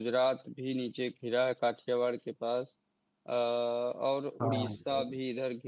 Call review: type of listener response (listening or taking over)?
listening